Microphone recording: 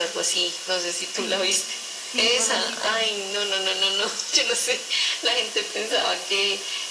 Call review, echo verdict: present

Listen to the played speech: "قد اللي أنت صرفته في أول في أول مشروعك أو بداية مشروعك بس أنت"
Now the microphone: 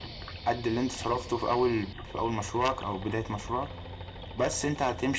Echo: present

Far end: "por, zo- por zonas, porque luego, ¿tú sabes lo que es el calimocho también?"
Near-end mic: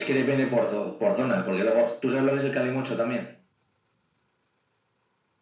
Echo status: present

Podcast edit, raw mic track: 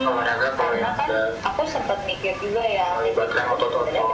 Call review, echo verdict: present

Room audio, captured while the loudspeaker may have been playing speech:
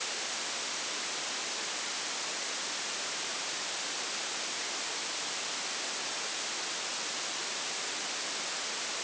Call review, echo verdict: none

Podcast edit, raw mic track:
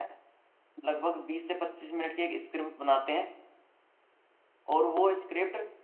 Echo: none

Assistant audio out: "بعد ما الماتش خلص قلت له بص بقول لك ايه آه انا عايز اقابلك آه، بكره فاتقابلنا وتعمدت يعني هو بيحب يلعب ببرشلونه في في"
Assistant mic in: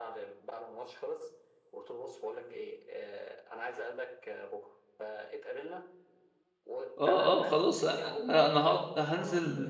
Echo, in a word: present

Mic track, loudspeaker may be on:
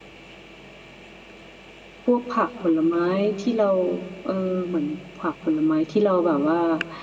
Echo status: none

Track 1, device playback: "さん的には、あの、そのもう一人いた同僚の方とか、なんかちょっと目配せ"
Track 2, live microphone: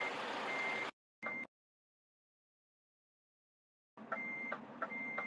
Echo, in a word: none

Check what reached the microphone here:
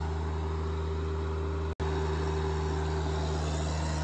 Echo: none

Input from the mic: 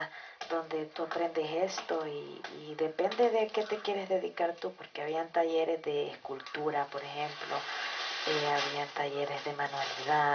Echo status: present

